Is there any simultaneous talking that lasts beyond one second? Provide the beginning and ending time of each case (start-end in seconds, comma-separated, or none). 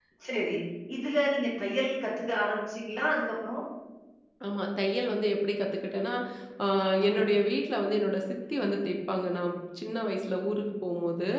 none